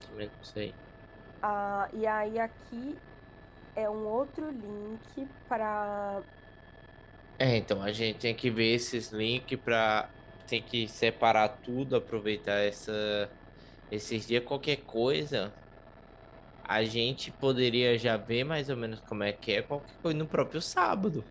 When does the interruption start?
none

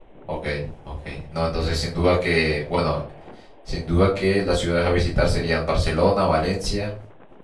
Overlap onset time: none

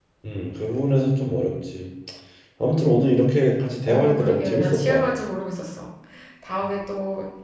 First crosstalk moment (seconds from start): 3.8 s

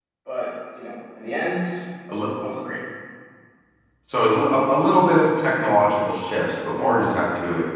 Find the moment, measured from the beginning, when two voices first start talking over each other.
none

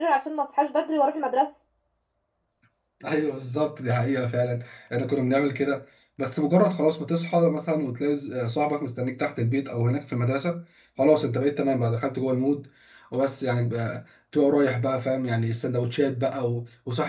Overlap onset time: none

